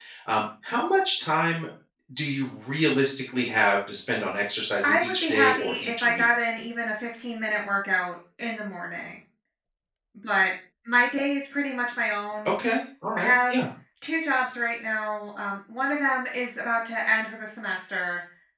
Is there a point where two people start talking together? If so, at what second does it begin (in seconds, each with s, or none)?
4.8 s